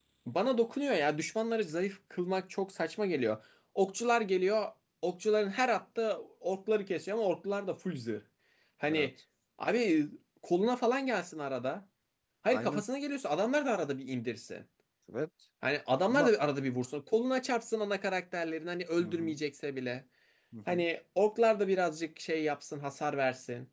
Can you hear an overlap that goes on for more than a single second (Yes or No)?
No